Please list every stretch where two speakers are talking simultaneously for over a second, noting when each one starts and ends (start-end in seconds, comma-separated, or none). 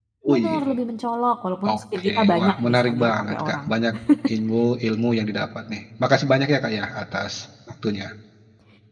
1.7-3.7